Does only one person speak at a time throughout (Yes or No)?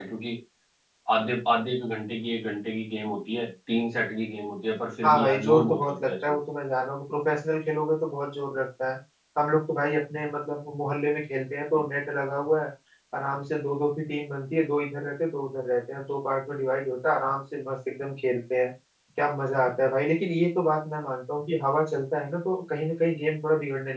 No